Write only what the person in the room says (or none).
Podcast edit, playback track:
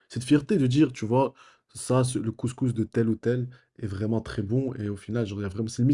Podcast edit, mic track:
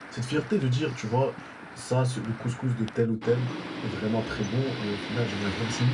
none